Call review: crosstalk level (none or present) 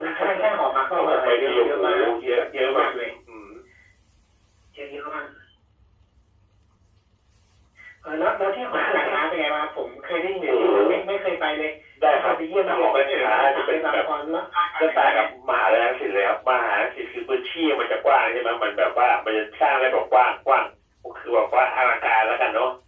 present